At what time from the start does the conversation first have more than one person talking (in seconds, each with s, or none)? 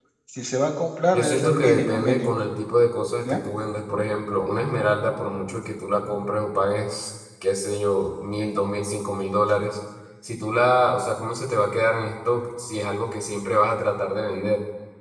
1.1 s